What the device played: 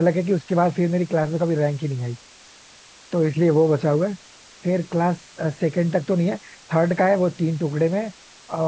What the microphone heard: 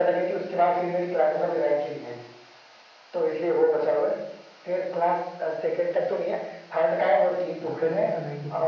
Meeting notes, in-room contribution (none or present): present